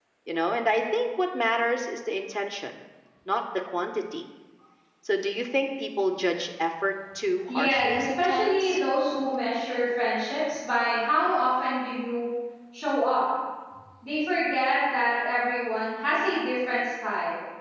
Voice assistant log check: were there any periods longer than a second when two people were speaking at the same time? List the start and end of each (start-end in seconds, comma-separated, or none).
7.5-8.8